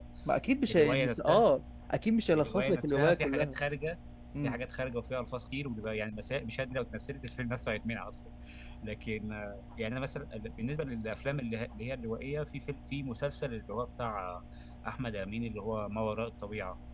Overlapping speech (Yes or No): Yes